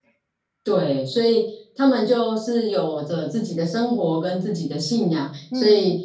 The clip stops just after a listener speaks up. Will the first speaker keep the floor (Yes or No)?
Yes